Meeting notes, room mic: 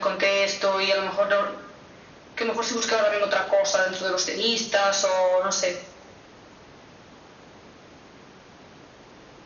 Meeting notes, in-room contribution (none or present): none